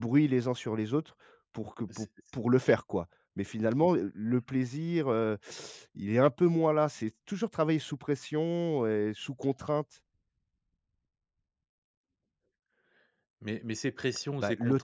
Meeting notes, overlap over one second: none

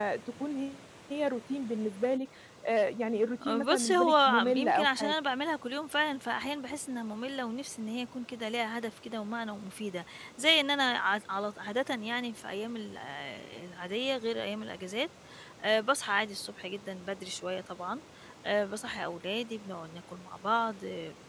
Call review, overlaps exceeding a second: present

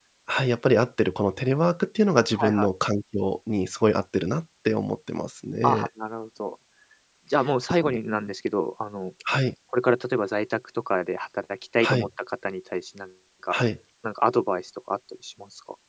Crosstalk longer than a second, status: none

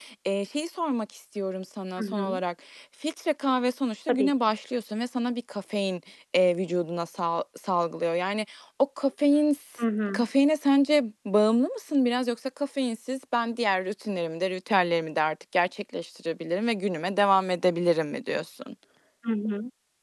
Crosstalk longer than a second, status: none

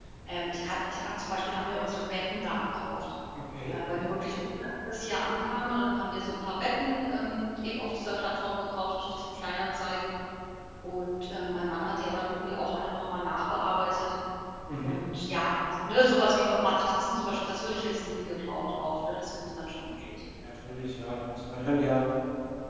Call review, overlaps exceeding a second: none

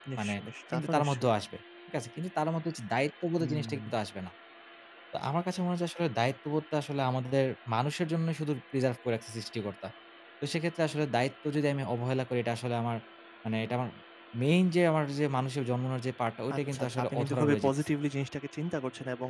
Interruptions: present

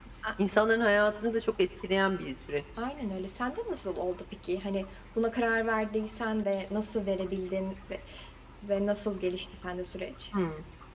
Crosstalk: none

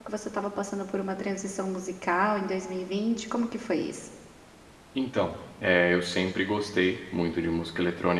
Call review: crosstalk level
none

